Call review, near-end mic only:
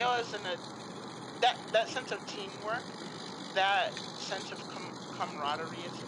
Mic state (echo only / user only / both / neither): echo only